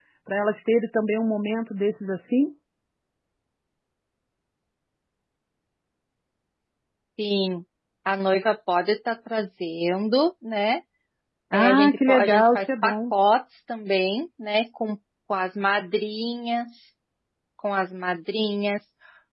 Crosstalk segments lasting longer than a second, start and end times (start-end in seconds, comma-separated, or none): 11.5-13.1